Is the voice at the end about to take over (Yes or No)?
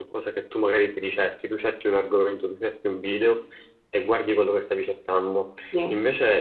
No